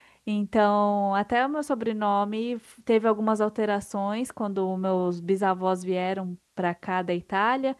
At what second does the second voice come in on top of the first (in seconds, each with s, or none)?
none